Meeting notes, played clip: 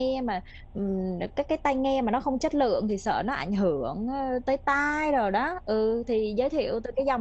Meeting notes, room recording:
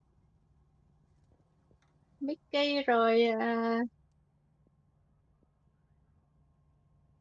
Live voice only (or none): Mickey rồi à,